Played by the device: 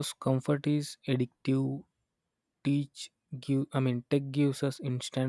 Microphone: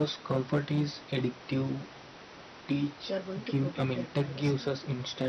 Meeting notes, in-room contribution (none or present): present